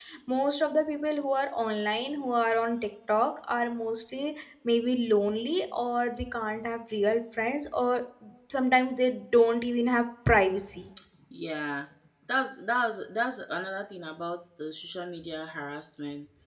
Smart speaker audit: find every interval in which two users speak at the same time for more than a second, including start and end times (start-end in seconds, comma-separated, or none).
none